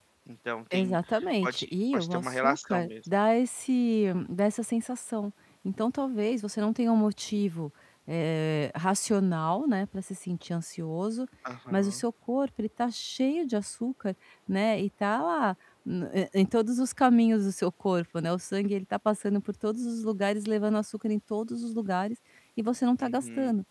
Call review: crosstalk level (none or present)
present